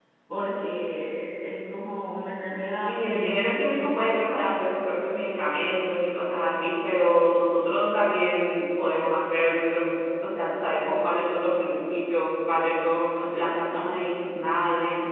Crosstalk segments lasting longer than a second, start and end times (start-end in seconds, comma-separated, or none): 2.9-4.2